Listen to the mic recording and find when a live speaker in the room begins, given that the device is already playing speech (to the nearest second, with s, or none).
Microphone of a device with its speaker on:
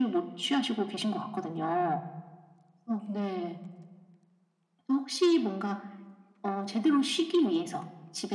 none